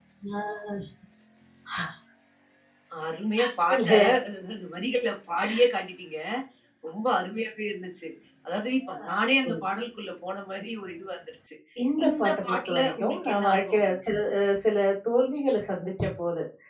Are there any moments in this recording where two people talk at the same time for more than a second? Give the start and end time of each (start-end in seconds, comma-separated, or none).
12.1-14.0